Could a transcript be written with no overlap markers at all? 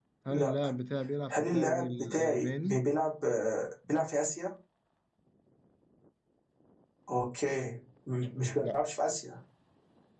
No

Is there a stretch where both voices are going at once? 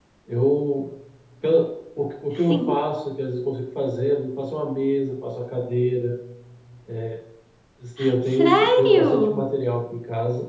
Yes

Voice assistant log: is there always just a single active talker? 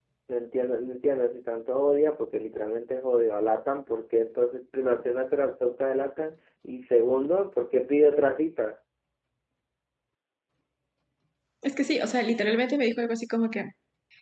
Yes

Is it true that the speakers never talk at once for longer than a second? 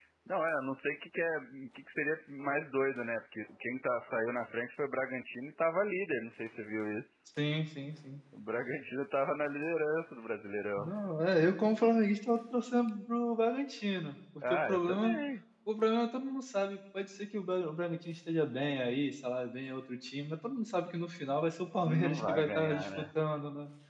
No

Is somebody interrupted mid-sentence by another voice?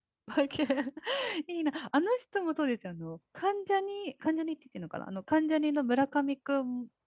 No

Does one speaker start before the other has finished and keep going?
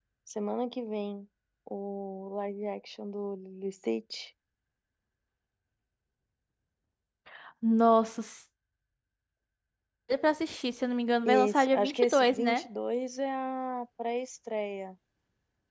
Yes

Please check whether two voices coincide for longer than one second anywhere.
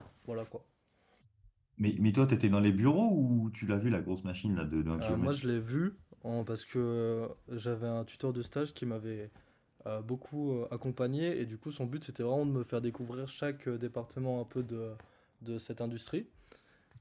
No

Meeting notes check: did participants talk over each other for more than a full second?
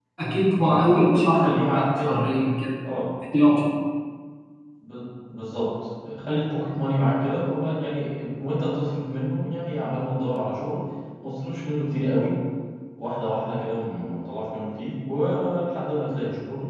Yes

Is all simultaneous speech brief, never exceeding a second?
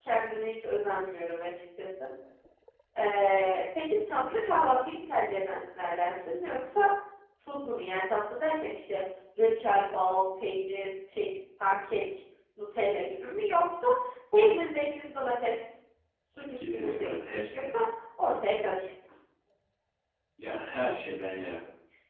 No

